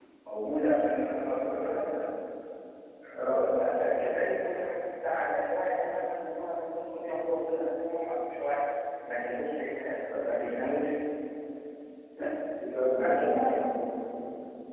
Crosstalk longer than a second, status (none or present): none